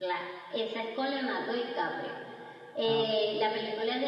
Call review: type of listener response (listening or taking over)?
listening